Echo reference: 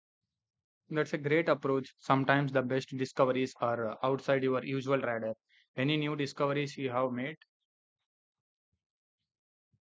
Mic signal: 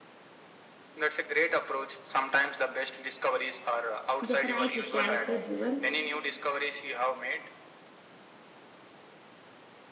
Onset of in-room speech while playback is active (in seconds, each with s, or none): 4.2 s